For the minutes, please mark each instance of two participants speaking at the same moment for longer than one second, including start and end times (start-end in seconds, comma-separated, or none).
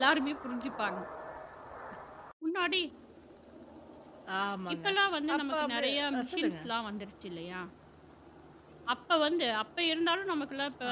5.3-6.6